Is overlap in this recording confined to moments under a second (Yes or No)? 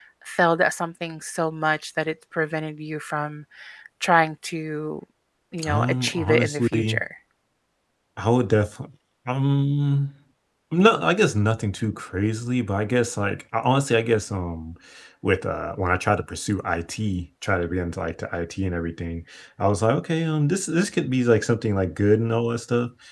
No